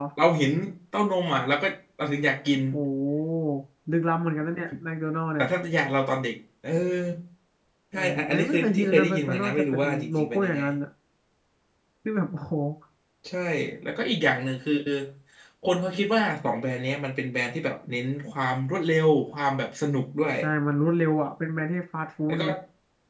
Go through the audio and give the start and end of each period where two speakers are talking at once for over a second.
7.9-10.6

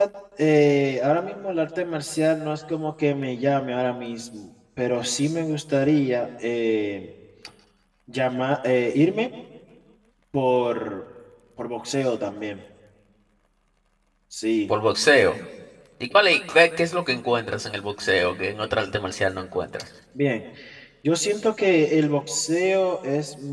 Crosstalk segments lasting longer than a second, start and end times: none

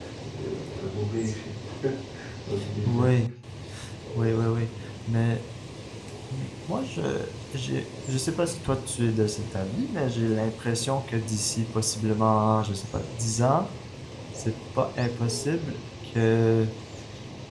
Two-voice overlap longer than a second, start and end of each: none

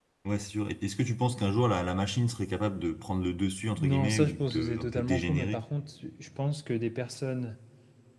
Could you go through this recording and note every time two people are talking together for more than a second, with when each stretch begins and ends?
3.8-5.6

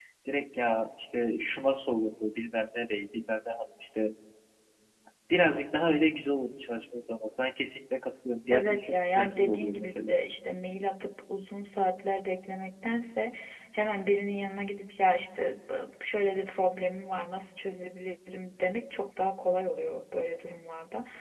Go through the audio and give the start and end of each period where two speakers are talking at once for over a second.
8.5-10.1

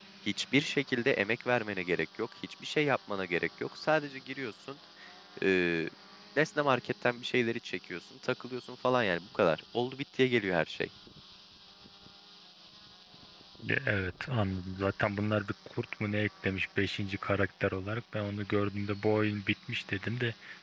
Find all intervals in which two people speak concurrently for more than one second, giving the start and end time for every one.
none

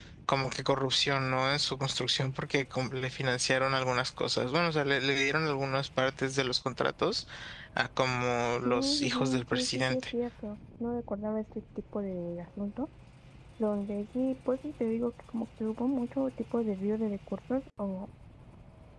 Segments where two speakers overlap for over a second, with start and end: 8.6-10.0

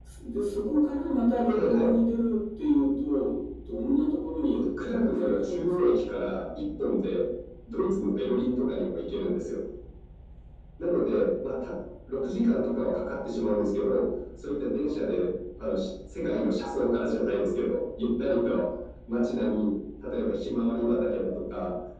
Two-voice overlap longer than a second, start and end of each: 4.5-5.9

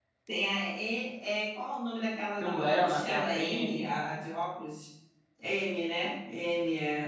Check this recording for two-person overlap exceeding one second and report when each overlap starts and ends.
2.4-3.8

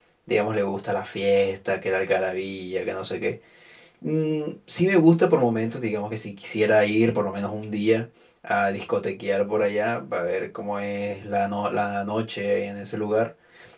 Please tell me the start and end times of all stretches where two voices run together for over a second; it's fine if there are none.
none

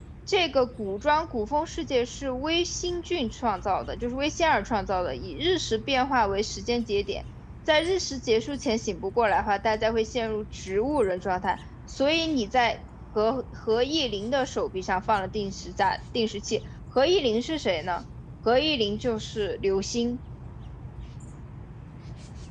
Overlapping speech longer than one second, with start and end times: none

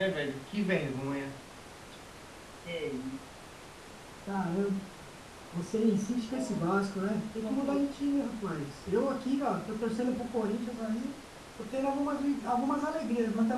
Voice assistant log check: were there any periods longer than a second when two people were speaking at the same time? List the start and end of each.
none

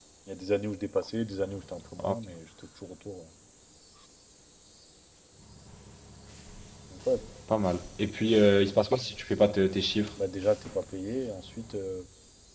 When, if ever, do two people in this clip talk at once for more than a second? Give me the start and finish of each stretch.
none

